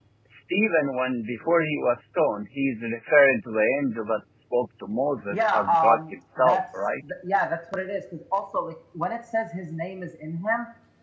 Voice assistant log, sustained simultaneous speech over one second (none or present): present